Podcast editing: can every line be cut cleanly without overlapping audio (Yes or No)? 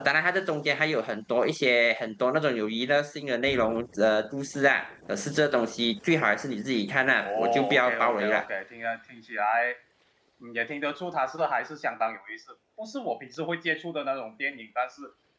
No